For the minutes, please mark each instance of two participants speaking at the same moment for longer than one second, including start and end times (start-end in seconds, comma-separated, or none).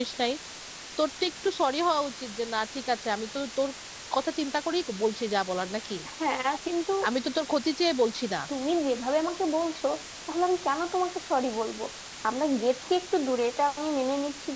none